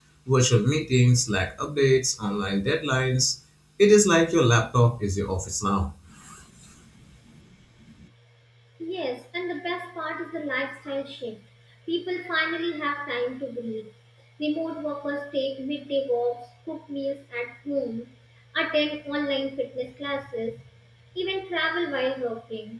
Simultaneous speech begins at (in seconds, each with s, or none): none